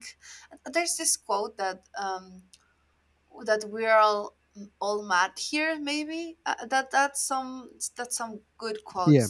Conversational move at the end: listening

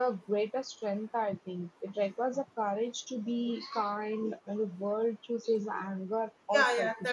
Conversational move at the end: taking over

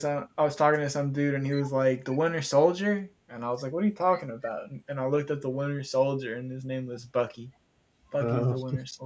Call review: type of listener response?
listening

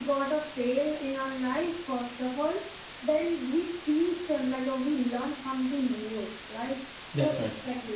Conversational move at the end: listening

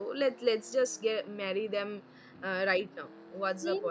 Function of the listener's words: taking over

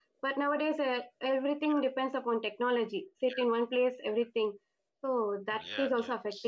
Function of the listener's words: taking over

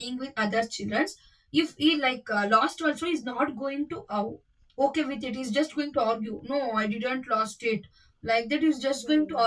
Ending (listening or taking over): listening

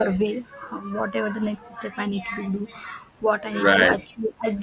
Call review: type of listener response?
listening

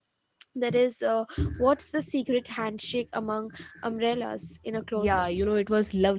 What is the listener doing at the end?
taking over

